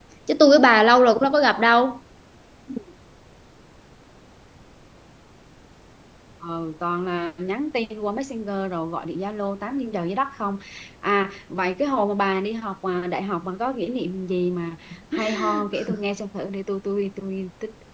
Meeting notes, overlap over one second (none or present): none